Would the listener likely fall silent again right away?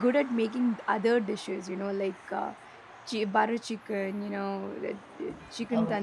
Yes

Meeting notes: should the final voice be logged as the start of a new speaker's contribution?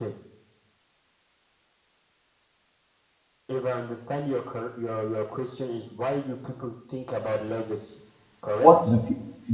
Yes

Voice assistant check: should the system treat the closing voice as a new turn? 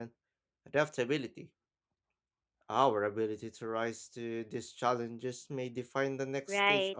Yes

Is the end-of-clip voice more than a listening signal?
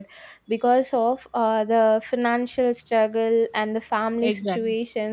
No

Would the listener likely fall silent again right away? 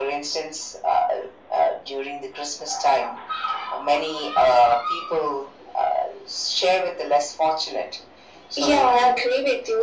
No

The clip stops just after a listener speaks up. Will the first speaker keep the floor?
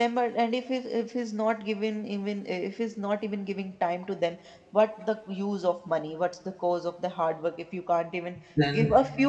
Yes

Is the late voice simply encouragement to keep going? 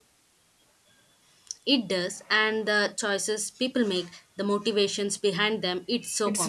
No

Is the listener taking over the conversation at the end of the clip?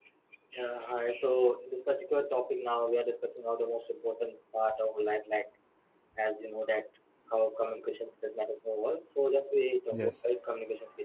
No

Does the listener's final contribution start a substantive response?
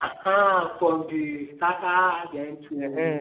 Yes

